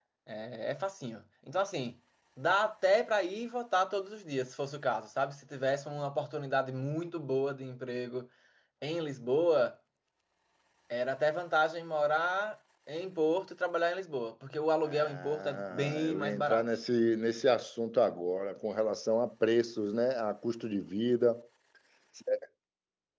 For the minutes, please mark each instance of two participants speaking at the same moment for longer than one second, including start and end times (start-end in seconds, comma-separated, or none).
14.8-16.6